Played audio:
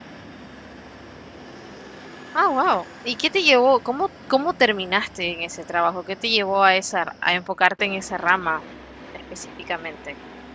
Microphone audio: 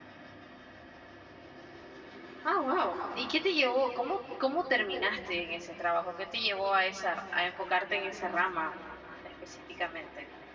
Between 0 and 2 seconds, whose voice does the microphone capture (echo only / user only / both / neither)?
neither